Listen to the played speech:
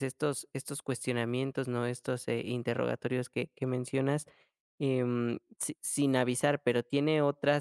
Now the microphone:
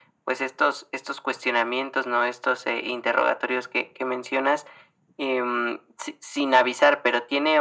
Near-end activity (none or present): none